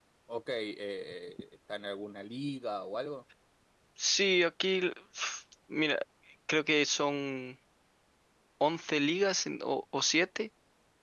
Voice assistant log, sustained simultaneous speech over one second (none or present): none